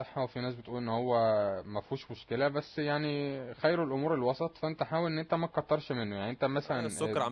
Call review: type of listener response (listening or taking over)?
taking over